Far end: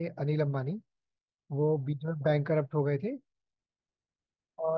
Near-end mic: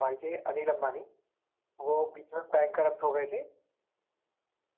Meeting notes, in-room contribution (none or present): none